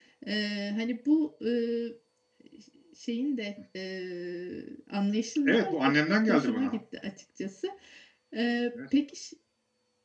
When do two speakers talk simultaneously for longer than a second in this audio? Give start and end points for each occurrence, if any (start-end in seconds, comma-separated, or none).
5.4-6.8